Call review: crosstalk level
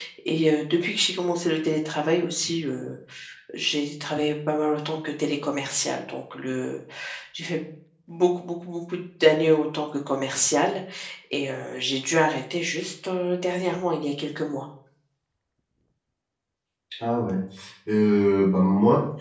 none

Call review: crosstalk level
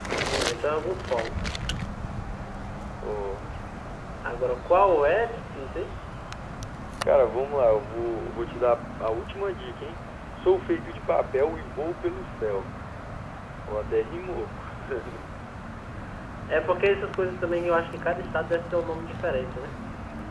none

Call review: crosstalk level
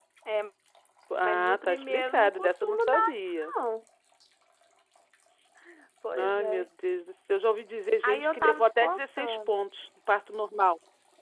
present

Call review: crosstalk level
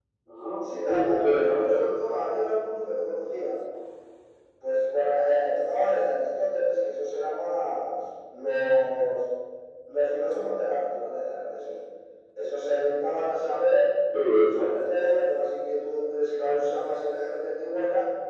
present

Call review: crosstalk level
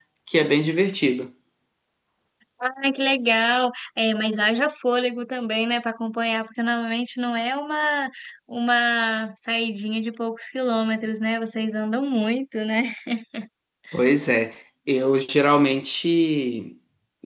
none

